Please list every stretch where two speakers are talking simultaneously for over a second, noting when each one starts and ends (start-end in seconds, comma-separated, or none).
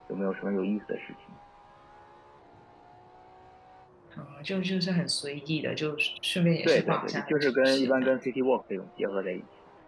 6.7-8.1